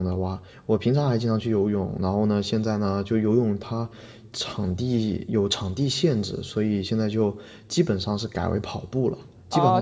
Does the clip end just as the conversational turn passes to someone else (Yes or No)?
Yes